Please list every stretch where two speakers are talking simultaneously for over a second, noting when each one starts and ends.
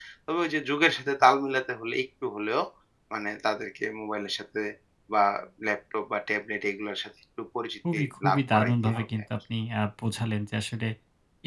7.9-9.2

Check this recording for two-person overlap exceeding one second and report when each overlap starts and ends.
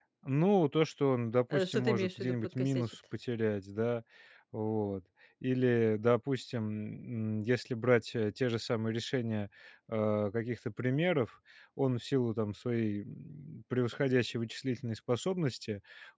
1.5-2.9

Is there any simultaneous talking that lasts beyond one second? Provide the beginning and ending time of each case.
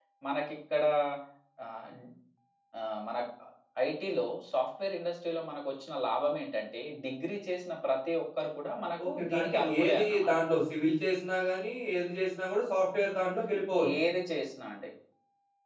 9.1-10.3

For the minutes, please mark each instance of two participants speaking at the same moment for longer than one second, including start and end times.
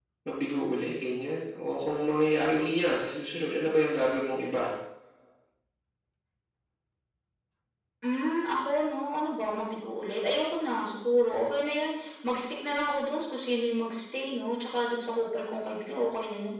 none

